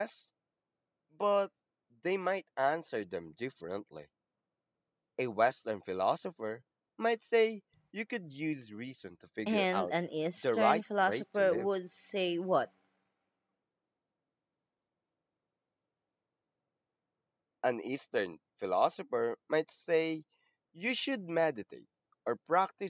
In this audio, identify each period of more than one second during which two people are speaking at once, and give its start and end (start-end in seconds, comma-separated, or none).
10.4-11.7